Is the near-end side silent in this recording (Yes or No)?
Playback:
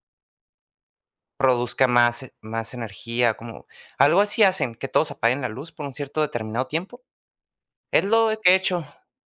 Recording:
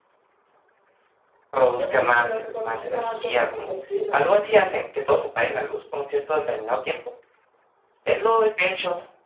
No